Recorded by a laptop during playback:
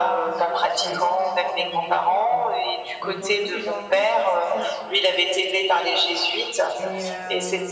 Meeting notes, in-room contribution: present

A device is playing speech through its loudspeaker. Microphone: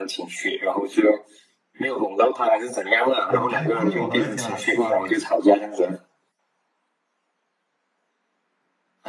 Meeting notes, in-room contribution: present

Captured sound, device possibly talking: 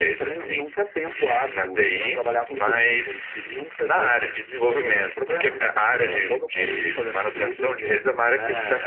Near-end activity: none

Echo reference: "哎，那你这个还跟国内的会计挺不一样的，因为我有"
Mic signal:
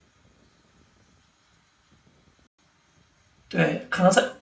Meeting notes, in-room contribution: present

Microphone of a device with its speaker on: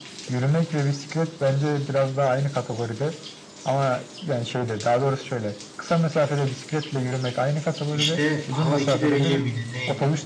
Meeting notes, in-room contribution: present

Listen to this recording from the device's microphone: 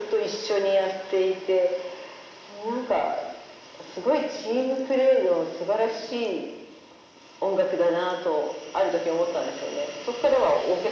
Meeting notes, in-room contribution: none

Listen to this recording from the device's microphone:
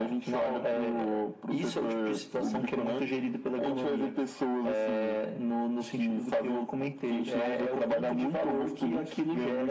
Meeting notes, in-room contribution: none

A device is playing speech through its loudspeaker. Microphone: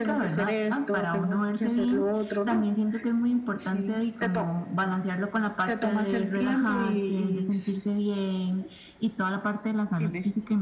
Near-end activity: none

